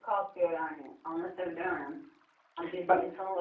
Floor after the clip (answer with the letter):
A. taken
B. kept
B